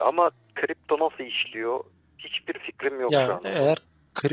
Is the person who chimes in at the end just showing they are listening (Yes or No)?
No